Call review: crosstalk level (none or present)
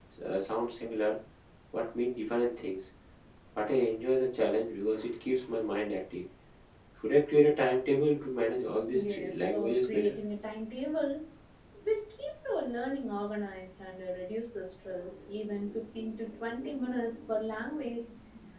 present